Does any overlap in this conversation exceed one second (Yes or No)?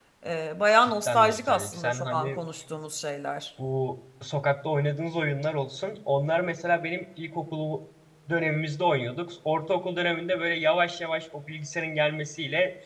Yes